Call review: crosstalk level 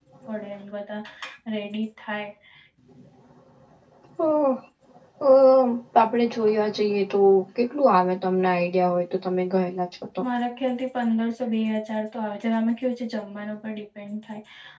none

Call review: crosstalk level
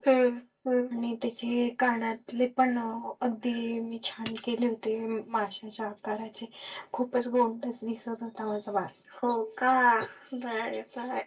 none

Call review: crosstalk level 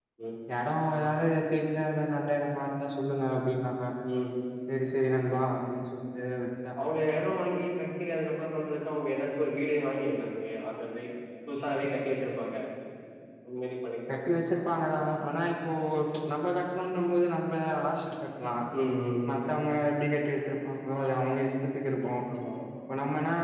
none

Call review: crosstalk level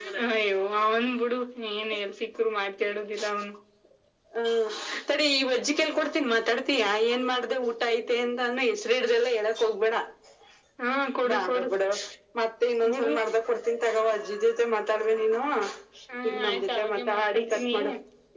present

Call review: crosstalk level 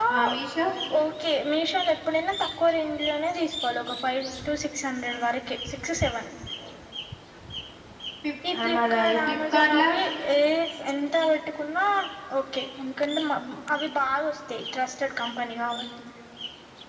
present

